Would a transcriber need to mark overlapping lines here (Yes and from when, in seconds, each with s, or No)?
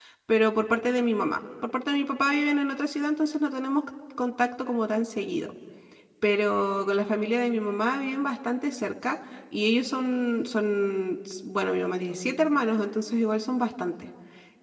No